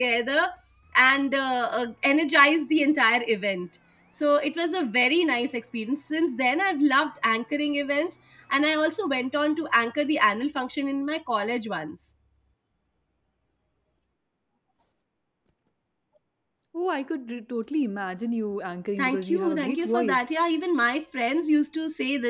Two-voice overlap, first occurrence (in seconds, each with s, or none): 19.0 s